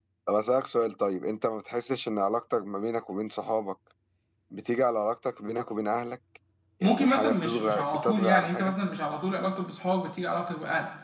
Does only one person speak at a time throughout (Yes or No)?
No